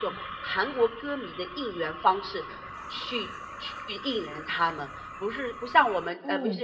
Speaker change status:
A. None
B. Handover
A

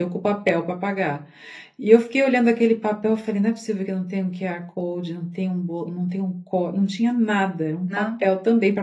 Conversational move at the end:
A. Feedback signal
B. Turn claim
A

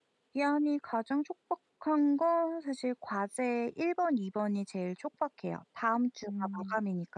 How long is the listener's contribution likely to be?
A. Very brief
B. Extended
A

